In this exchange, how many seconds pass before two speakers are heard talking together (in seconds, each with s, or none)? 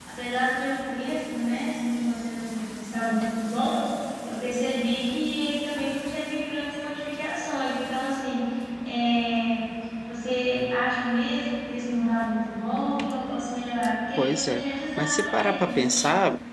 14.2 s